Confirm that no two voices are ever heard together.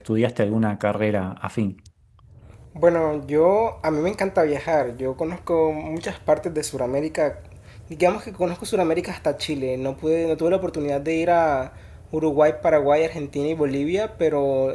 Yes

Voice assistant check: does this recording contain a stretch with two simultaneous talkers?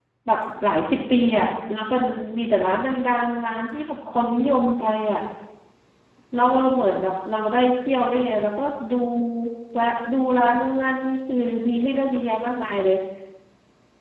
No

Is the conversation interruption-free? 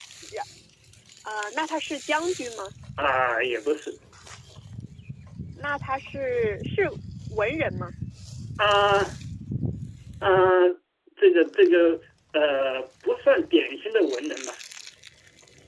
Yes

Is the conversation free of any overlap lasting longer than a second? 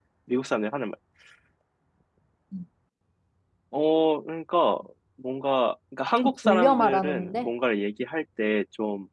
No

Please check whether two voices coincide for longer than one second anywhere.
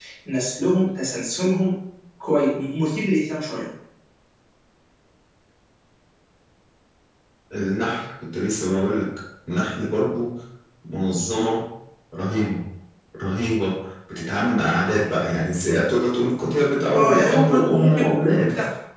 Yes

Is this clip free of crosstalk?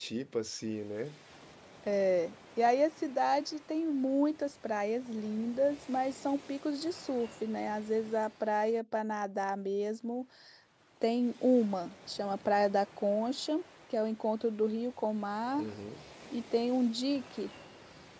Yes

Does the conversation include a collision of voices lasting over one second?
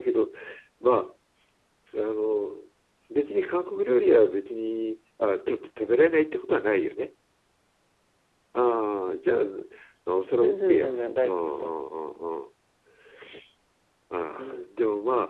Yes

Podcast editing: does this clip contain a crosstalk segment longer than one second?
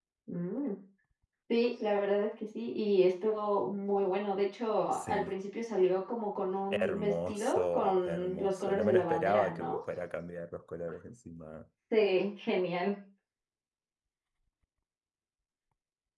Yes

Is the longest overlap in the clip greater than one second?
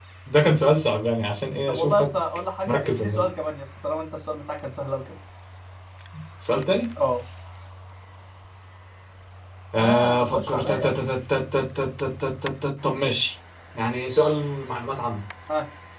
Yes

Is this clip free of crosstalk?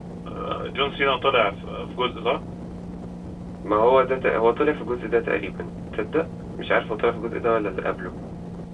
Yes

